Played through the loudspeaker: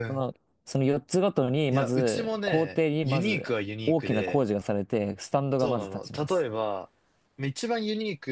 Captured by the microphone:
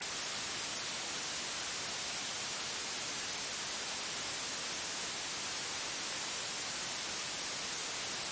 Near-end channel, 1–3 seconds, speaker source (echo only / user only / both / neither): neither